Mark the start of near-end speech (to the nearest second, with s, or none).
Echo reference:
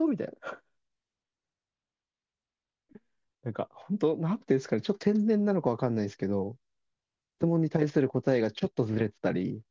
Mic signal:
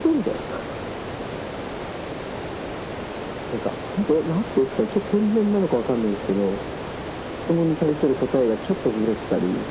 none